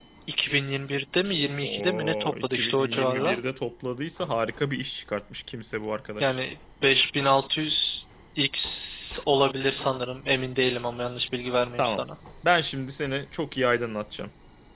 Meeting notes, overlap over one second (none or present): present